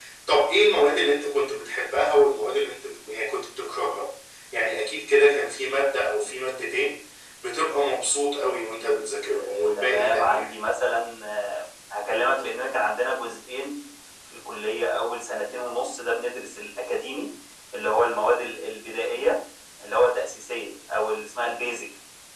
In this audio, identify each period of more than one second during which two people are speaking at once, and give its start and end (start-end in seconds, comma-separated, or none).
9.3-10.5